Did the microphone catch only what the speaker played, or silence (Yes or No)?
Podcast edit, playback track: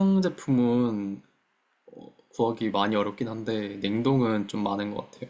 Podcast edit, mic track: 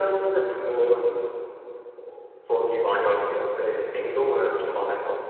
Yes